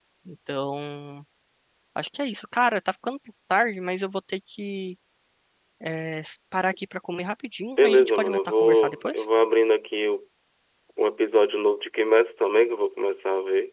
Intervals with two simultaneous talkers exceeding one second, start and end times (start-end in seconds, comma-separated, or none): 7.8-9.3